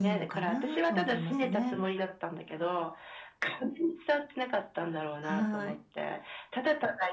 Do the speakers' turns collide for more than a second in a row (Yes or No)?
Yes